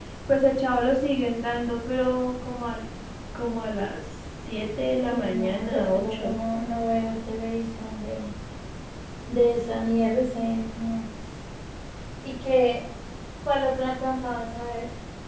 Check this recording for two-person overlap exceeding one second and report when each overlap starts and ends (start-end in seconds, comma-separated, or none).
5.1-6.4